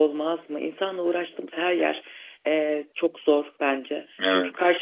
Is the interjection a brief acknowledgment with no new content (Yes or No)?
Yes